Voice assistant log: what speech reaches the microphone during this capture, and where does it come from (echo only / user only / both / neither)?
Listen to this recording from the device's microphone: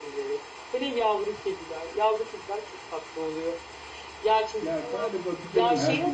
both